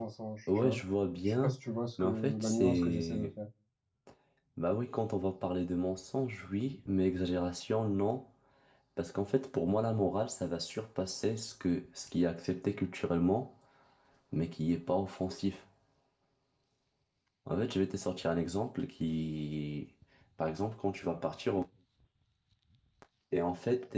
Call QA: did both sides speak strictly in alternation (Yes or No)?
No